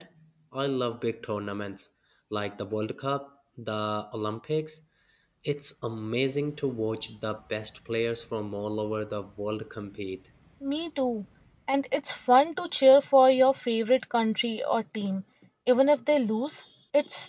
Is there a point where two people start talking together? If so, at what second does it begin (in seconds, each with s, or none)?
none